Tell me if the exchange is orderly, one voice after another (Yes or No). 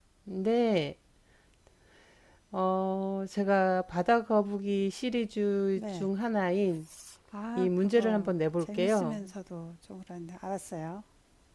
No